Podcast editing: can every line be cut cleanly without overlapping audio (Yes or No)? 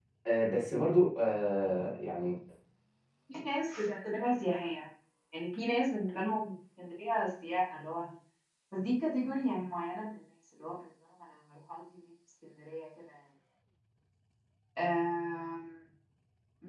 Yes